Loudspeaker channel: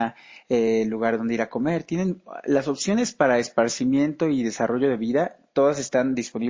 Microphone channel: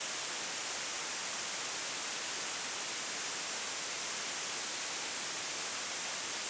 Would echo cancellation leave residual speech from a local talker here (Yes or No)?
No